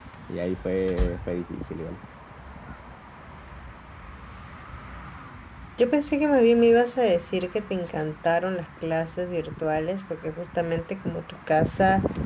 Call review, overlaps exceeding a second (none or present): none